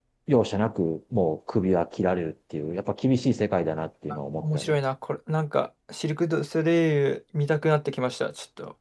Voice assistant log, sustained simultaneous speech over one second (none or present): none